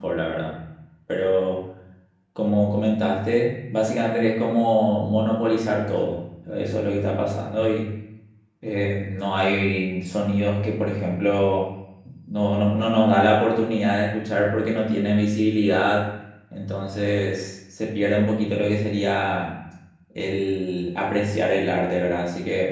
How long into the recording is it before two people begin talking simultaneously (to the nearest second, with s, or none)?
none